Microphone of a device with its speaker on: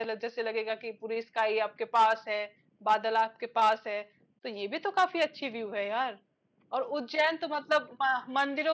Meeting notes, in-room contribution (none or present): present